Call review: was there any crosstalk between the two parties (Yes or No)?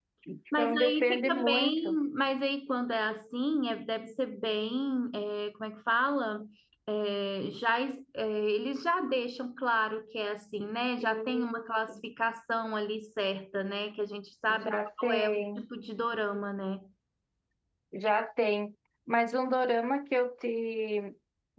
Yes